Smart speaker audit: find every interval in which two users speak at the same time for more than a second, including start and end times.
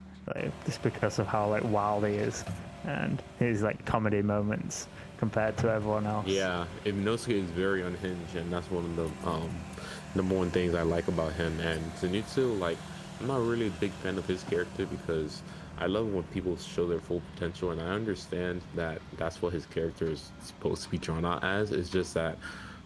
none

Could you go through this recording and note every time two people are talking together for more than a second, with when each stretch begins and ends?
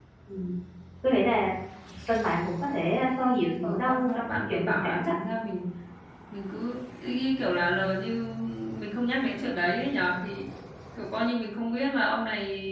3.6-5.1

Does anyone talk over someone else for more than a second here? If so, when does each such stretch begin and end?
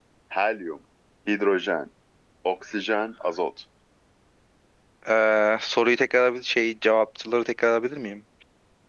none

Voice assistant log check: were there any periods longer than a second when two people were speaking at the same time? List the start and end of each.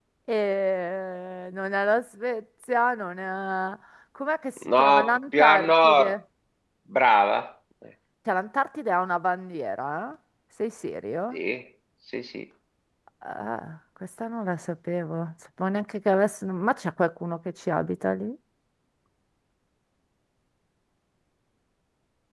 4.8-6.2

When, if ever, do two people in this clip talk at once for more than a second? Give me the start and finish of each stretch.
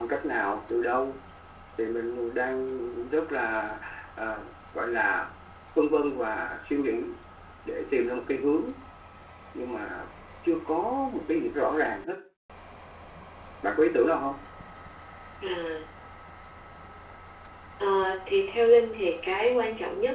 none

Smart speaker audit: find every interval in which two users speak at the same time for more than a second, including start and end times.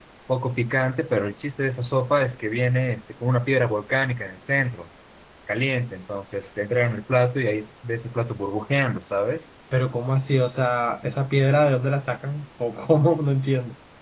none

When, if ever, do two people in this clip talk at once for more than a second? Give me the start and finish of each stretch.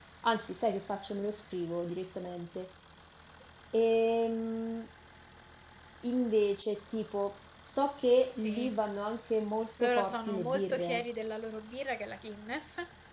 9.8-11.0

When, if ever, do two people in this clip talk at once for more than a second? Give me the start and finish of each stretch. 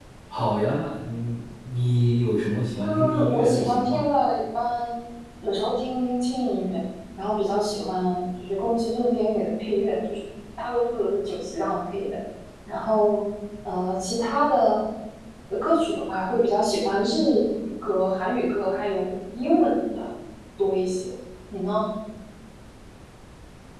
2.8-4.0

